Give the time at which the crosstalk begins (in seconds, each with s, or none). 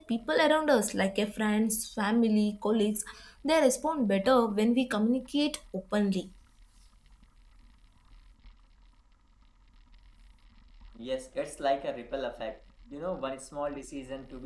none